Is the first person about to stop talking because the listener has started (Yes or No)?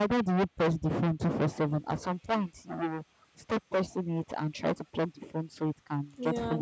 No